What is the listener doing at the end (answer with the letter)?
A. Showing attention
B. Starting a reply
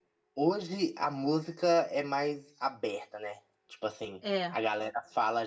A